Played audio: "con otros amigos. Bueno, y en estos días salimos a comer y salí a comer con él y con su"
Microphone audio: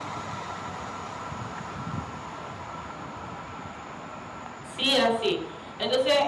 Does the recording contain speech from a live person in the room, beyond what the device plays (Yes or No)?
Yes